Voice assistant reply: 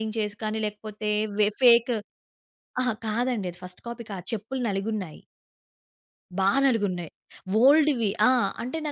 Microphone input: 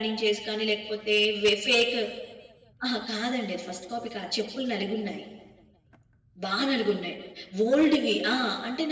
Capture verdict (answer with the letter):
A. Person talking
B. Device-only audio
B